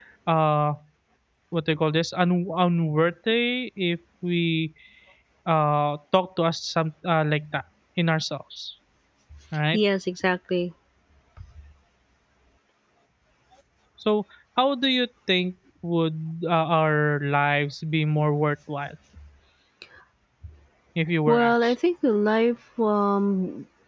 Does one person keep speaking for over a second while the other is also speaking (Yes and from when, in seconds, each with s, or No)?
No